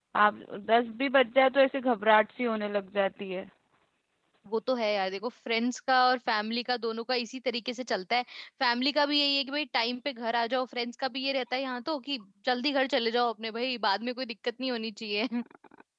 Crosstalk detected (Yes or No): No